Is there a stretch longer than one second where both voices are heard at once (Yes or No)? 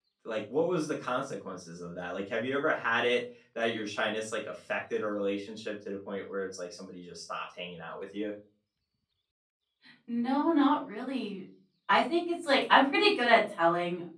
No